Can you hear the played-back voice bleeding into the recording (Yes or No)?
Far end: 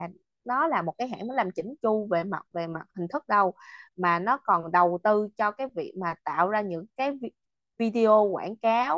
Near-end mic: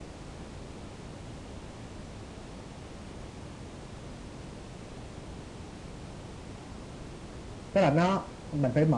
No